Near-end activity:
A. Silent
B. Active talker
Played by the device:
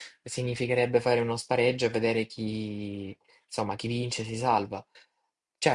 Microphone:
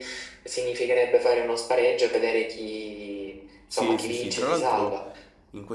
B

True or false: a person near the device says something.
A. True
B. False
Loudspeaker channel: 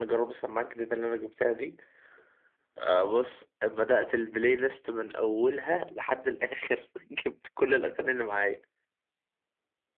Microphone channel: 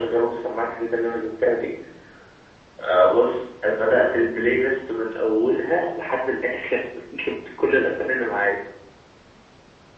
B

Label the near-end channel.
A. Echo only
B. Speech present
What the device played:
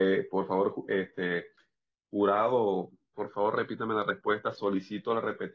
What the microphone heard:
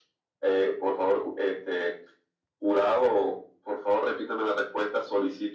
A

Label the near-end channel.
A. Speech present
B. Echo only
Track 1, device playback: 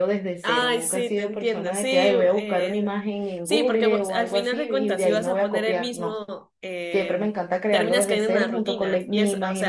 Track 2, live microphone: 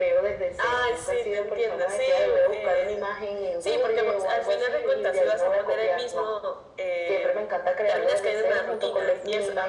B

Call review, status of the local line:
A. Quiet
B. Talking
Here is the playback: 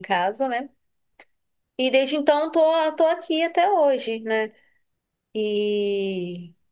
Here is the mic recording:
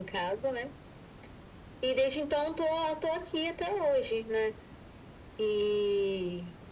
A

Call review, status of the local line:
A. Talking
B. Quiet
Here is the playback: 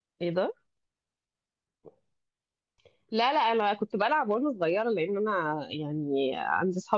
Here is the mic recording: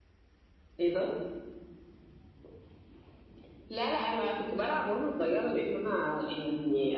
B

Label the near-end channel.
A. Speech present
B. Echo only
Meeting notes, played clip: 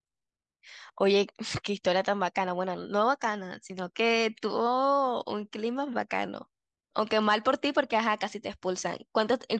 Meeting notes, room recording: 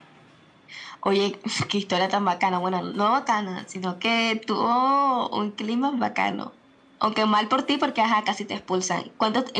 B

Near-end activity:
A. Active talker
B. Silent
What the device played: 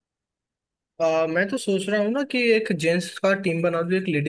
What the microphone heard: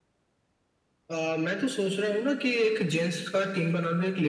B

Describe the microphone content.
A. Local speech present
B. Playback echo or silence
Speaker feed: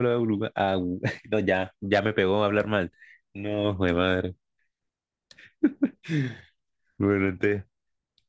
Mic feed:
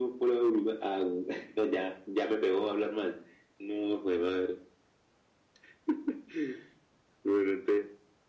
B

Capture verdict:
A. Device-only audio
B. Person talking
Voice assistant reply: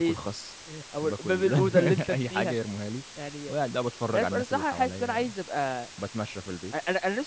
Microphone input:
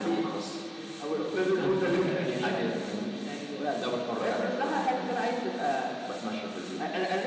A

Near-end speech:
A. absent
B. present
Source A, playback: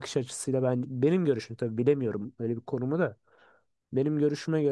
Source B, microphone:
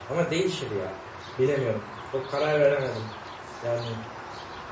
B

